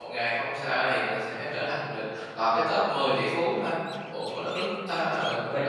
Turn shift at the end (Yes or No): Yes